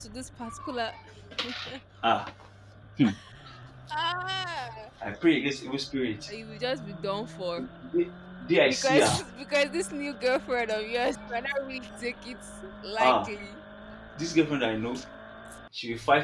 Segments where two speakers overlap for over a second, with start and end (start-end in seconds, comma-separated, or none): none